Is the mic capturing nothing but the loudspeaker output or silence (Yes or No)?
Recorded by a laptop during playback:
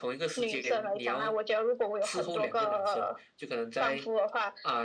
Yes